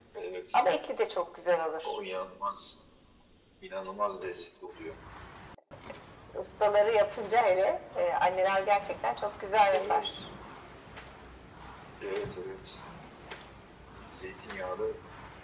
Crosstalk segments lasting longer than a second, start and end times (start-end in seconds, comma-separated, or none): none